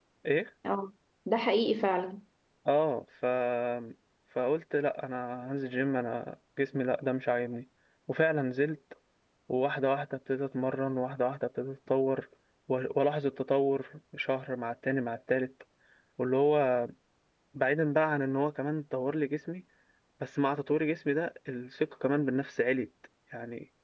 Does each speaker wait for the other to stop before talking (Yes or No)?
Yes